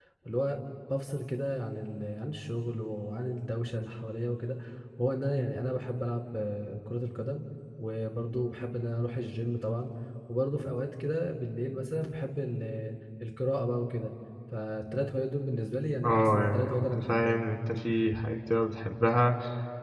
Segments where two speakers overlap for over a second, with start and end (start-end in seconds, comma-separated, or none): 16.0-17.4